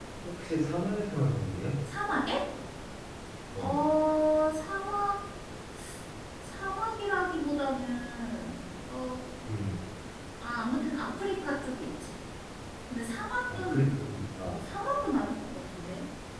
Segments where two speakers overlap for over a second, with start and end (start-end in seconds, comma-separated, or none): none